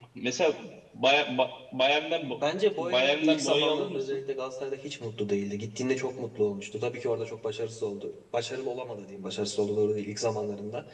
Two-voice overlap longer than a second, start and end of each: 2.8-4.2

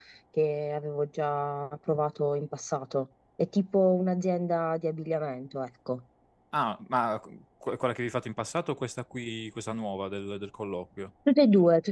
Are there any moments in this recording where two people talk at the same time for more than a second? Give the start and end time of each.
none

